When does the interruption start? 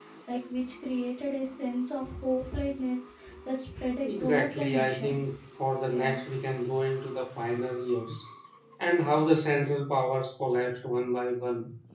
4.0 s

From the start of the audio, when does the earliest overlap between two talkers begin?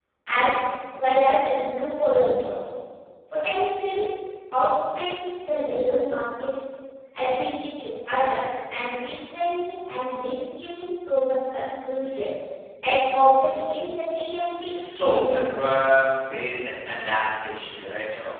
14.6 s

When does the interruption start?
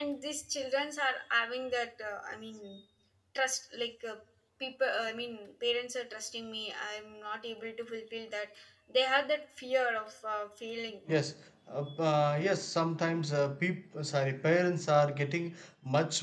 none

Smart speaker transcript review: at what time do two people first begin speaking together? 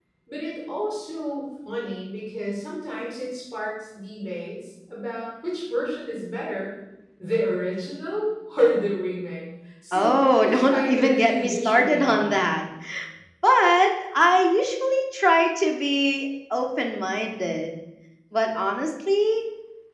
9.9 s

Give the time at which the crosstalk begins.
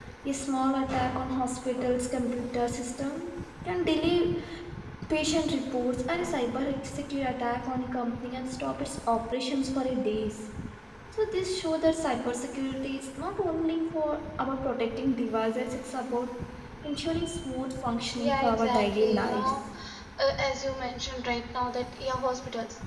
18.2 s

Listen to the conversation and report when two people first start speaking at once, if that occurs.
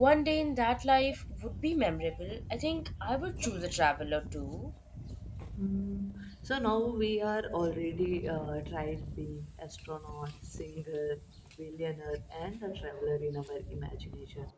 none

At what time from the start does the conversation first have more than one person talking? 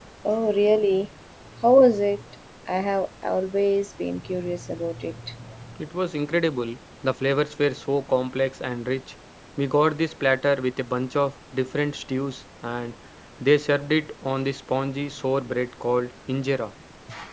none

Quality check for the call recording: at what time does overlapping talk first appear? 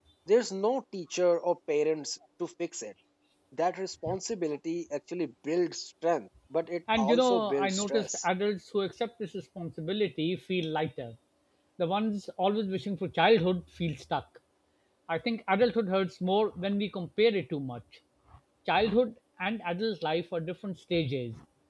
6.9 s

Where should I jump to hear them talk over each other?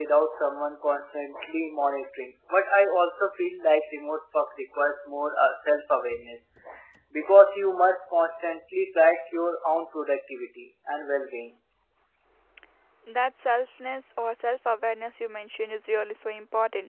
none

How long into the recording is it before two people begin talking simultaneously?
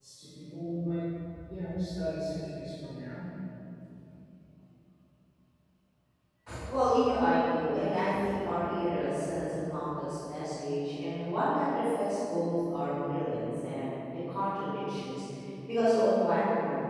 none

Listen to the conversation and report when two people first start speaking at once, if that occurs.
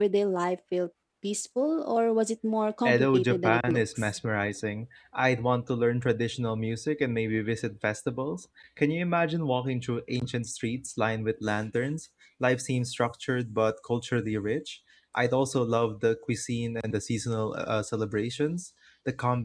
2.8 s

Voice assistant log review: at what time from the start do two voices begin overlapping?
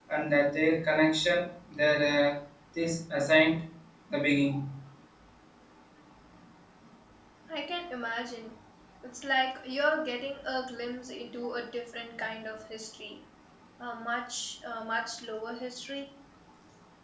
none

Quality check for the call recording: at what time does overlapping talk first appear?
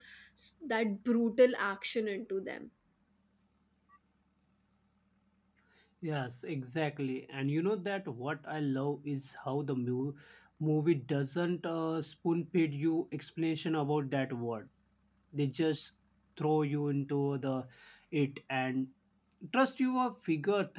none

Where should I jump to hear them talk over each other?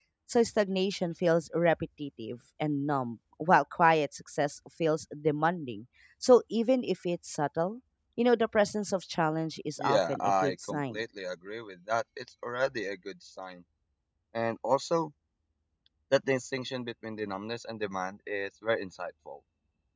9.8 s

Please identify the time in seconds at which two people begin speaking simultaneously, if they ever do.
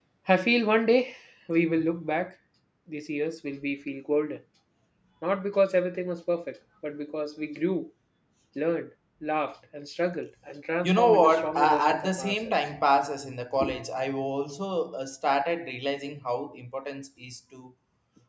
10.8 s

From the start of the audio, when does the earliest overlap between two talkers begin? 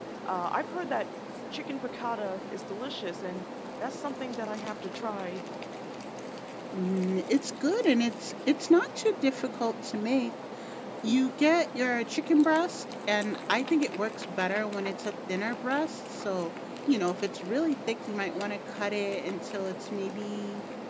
none

